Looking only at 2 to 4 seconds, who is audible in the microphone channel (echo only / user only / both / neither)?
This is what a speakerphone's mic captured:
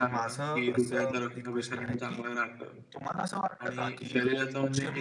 both